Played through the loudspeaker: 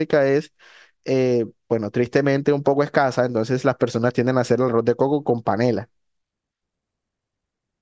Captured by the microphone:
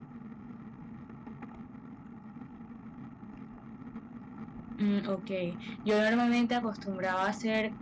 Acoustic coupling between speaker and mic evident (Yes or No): No